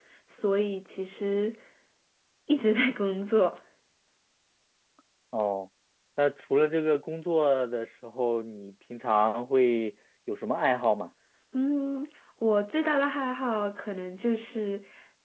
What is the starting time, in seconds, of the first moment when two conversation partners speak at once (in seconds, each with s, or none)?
none